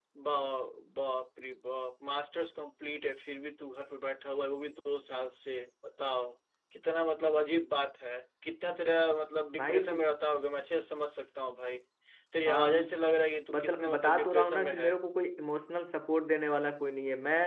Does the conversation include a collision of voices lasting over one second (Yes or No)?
Yes